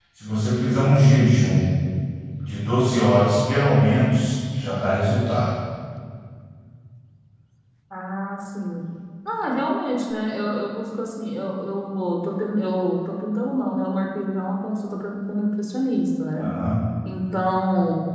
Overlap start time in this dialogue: none

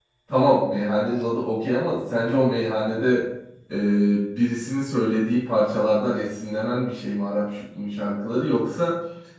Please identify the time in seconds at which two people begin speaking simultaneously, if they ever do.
none

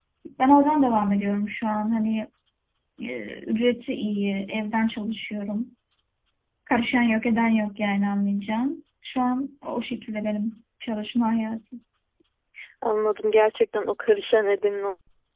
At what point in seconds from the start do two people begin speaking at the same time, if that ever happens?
none

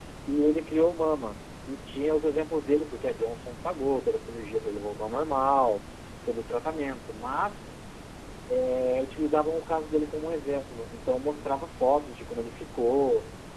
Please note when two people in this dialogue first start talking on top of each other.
none

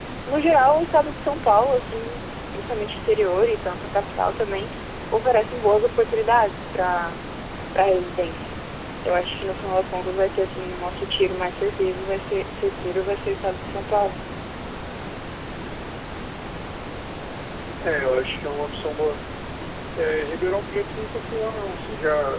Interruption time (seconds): none

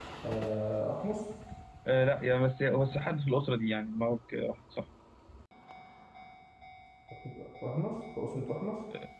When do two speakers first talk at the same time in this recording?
none

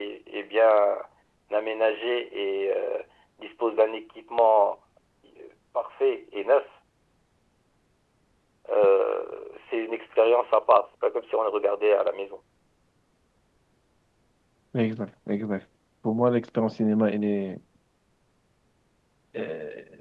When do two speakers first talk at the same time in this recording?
none

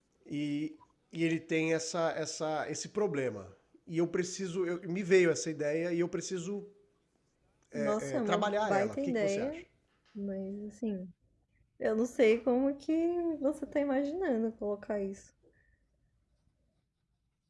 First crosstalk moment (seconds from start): 7.8 s

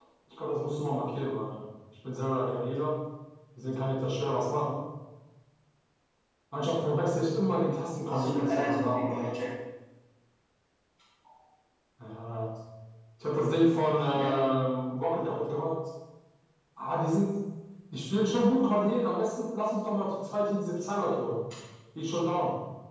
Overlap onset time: 8.1 s

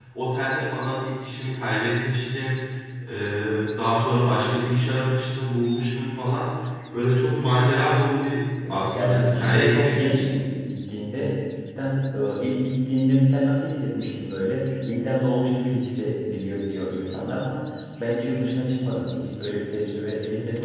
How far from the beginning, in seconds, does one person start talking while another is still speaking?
8.7 s

